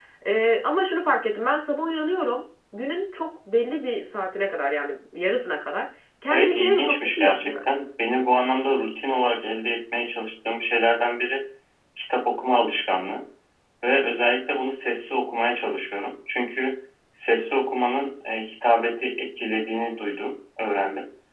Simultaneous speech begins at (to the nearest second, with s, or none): 6 s